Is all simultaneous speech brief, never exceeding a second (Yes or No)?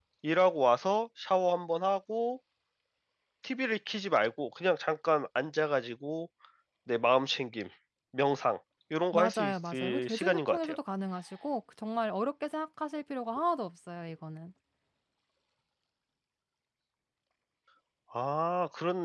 No